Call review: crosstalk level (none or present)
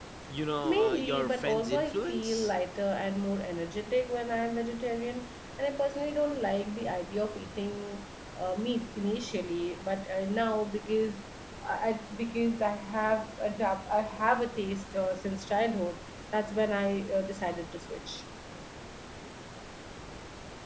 present